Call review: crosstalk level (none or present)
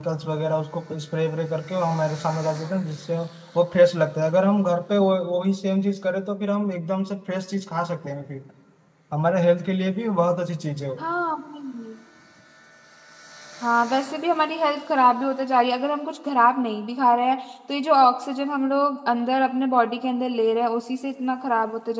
none